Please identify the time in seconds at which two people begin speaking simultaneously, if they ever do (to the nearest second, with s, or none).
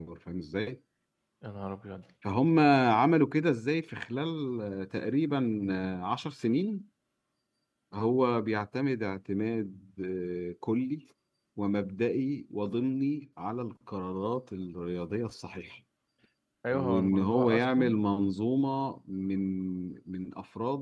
17 s